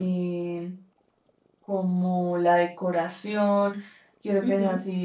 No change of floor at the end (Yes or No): Yes